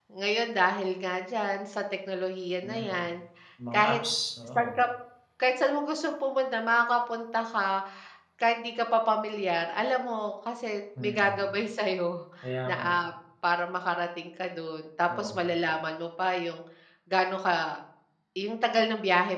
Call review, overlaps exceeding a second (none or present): none